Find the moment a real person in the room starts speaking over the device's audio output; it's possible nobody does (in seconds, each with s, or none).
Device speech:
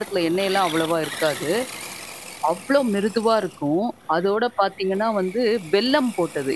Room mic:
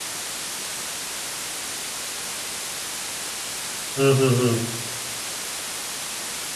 4.0 s